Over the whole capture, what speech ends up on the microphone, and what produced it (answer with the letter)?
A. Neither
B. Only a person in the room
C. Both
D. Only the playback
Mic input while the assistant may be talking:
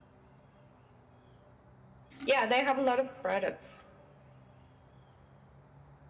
B